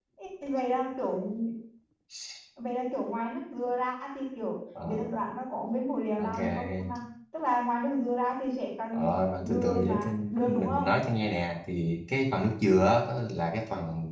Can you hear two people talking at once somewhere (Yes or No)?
Yes